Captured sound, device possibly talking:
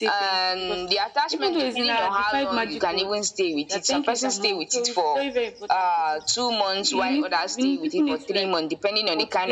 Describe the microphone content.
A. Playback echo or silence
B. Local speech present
A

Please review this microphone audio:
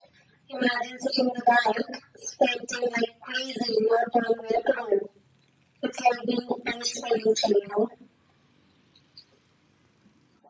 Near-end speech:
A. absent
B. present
A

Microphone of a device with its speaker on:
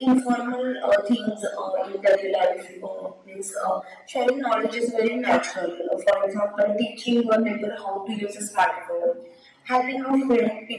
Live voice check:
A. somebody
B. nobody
B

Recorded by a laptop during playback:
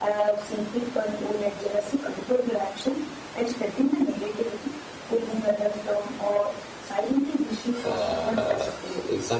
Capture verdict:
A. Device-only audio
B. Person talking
B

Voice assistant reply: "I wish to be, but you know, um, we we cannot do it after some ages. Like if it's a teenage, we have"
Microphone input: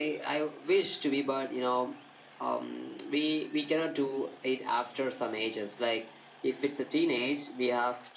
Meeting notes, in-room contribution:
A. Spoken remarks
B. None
B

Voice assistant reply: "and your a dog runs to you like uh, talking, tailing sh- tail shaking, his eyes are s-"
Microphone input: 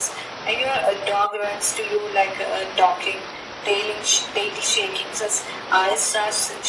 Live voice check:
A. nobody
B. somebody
A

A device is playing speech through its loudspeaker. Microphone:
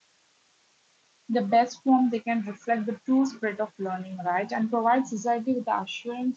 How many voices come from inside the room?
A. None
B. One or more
B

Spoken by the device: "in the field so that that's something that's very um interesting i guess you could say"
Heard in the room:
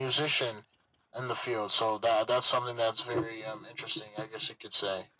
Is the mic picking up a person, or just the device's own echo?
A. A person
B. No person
B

